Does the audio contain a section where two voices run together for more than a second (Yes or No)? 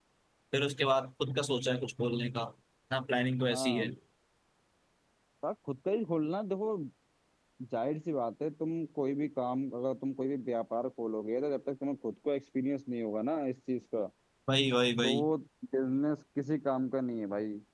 No